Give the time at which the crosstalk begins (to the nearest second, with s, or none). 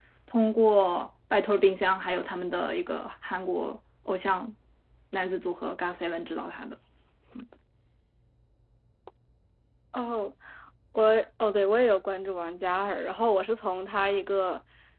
none